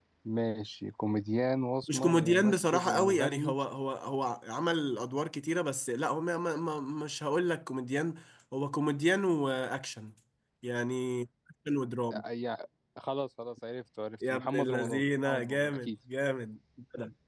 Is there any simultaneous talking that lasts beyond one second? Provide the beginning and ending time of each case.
1.9-3.5, 14.3-15.9

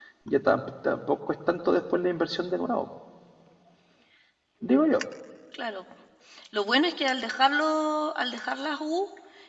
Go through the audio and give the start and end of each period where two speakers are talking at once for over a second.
none

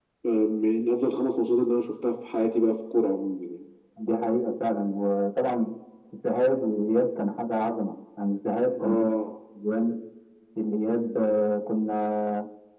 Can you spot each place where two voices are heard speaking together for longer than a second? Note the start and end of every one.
none

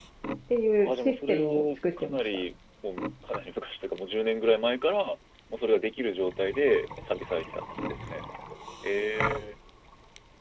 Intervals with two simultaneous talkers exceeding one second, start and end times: 0.8-2.4

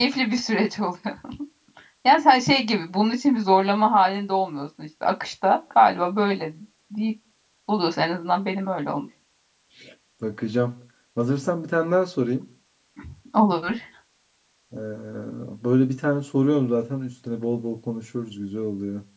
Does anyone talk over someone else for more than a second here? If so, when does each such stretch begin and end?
none

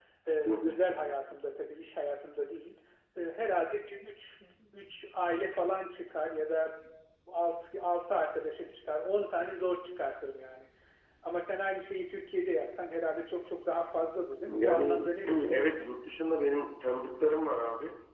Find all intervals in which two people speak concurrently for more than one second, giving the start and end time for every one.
14.5-15.7

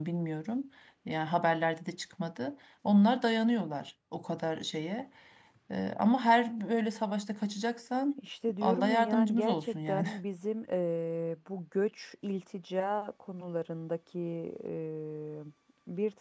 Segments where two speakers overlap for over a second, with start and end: 8.6-10.1

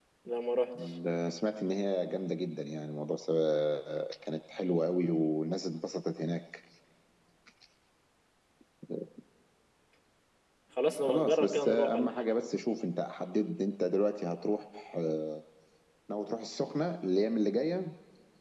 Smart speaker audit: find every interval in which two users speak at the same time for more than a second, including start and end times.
11.0-12.3

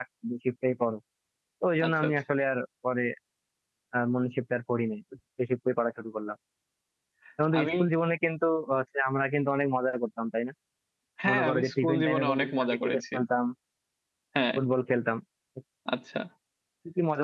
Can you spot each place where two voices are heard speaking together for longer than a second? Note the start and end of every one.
11.3-13.0

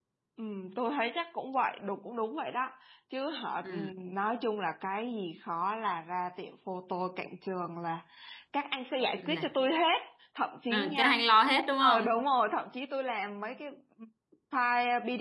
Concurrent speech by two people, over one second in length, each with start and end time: none

